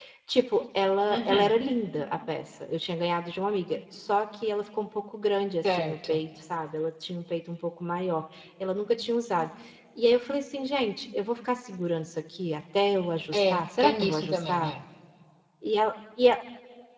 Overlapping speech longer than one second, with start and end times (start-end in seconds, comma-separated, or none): 13.3-14.7